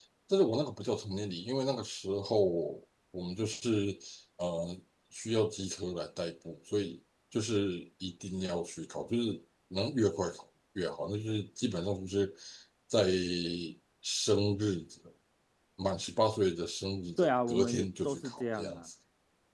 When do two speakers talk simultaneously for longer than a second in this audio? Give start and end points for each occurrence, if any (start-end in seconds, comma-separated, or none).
17.2-18.9